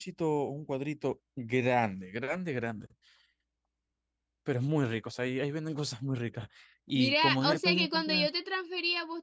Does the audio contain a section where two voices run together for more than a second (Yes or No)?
Yes